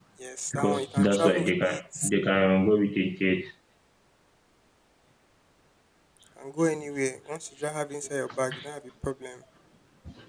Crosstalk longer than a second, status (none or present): present